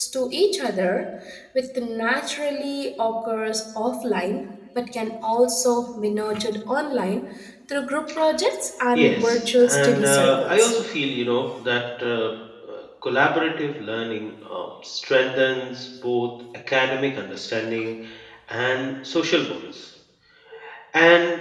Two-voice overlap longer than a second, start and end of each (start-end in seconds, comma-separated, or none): 8.9-10.7